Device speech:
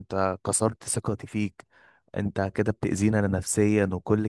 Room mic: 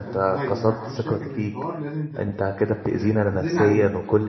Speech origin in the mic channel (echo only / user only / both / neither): both